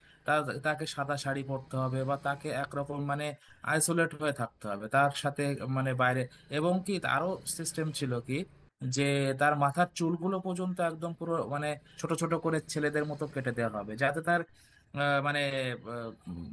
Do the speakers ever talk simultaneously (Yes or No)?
No